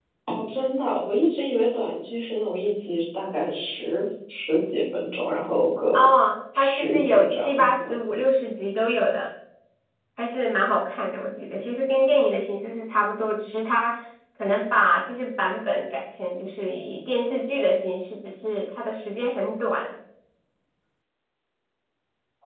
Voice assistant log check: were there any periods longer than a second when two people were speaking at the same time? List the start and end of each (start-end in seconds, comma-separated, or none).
6.5-7.9